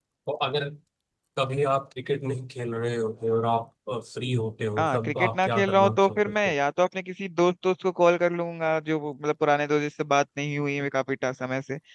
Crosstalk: present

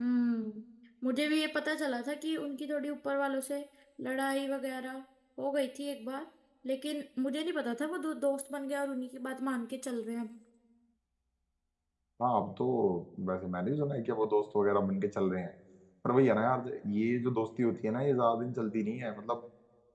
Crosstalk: none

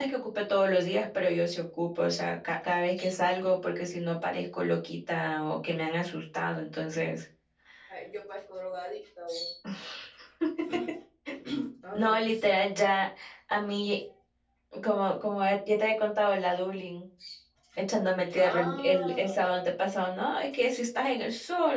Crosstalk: present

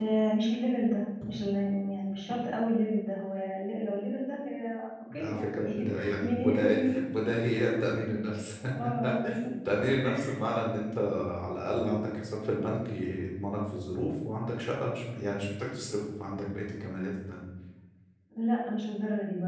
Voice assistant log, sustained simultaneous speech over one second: present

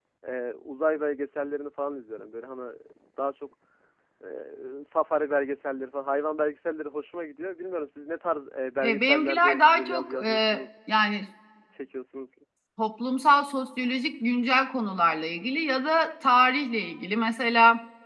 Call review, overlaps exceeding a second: present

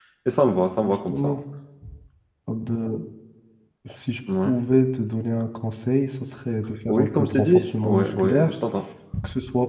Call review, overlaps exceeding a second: present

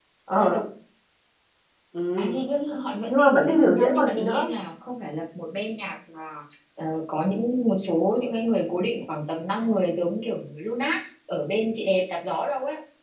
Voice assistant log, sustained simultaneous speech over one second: present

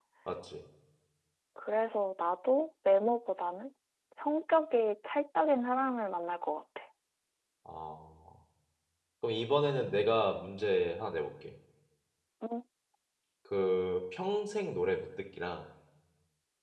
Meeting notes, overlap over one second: none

